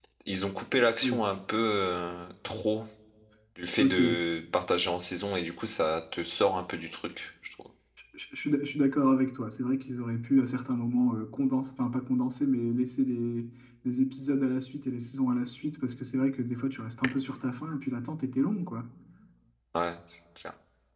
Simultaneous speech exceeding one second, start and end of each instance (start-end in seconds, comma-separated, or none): none